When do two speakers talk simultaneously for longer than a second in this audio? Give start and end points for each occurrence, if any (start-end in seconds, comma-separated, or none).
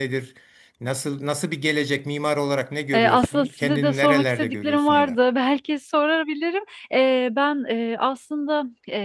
2.9-5.2